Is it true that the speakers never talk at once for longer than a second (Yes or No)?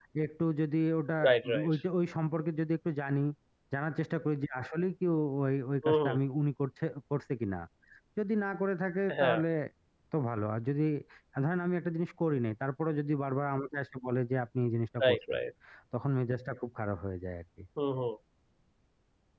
Yes